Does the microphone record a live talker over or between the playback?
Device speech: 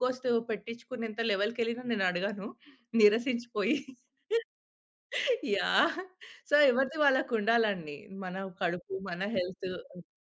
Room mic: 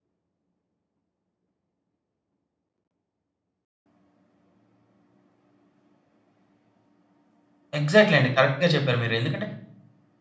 Yes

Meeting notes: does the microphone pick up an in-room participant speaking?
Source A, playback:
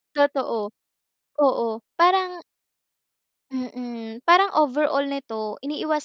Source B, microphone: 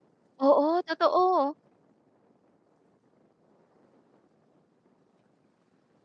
Yes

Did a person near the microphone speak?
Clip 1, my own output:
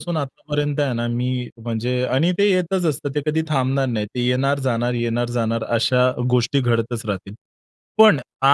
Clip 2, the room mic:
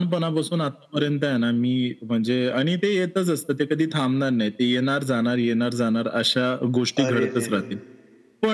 Yes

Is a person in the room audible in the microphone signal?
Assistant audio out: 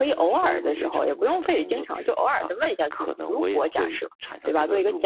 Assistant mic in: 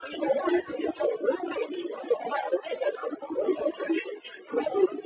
No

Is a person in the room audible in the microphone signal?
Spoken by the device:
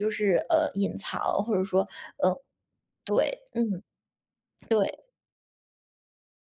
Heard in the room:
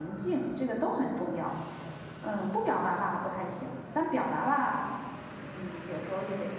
Yes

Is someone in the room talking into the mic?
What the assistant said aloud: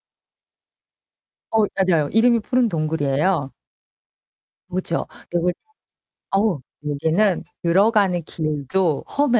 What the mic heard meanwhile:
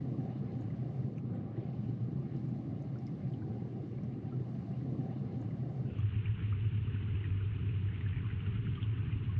No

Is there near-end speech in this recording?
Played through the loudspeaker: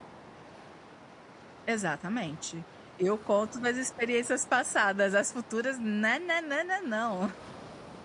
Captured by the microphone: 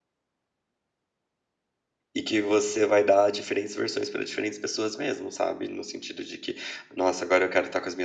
Yes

